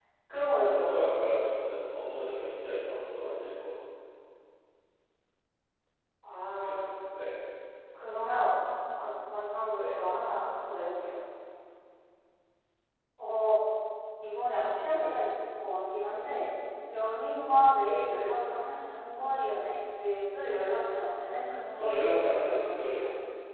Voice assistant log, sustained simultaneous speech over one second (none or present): present